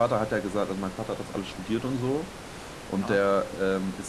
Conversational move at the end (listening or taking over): listening